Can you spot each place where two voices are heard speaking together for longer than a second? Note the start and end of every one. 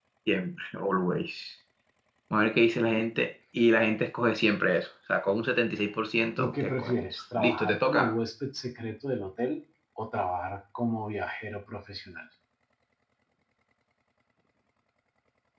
6.4-8.2

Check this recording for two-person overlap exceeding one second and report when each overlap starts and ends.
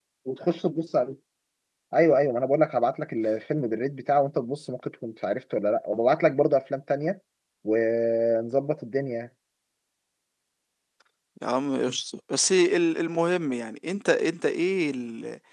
none

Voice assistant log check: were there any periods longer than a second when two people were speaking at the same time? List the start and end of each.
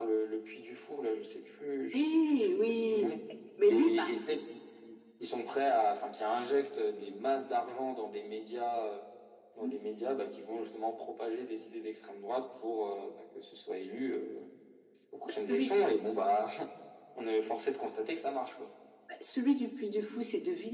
1.9-3.1

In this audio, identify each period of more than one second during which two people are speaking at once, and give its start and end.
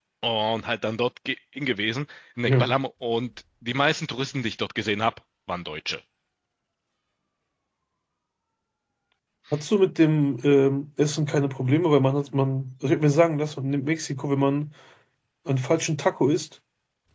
none

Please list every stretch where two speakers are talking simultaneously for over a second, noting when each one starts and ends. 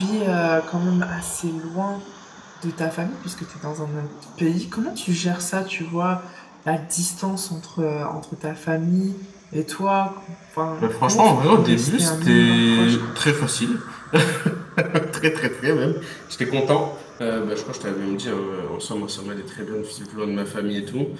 10.8-13.2

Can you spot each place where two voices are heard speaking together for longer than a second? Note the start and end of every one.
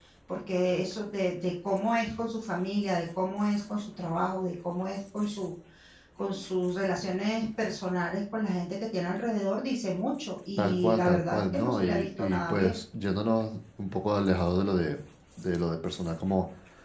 10.6-12.8

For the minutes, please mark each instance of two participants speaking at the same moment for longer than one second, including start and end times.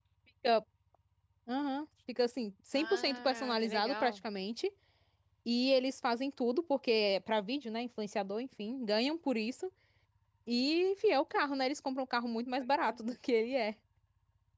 2.7-4.2

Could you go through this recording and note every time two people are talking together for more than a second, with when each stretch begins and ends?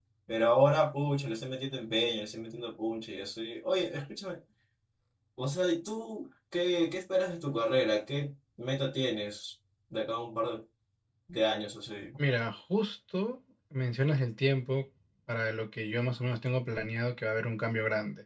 none

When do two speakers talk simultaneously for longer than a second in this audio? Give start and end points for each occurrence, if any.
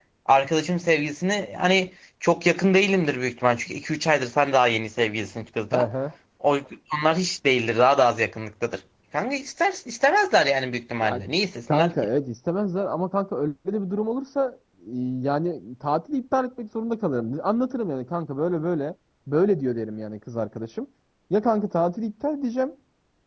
none

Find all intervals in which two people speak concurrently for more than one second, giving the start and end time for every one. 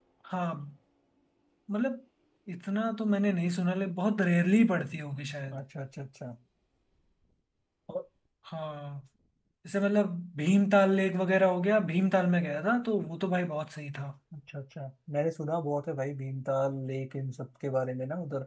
none

